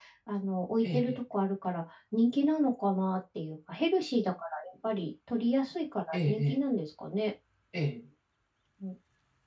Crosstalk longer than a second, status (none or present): none